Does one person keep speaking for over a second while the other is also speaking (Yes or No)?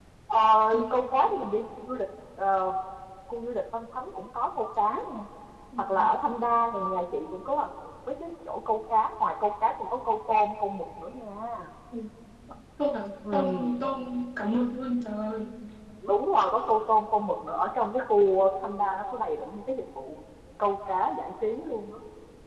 No